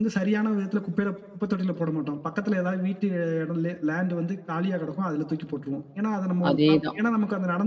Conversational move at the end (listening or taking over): listening